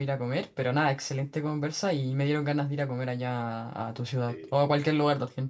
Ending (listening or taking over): listening